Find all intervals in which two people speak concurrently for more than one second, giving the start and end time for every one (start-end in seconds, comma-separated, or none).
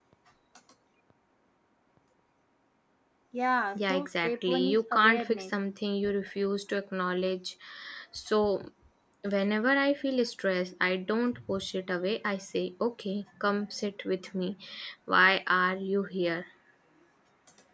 3.8-5.4